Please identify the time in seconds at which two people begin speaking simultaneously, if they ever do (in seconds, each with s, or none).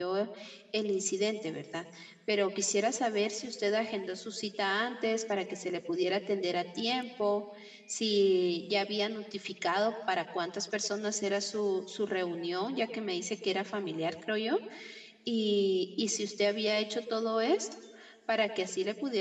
none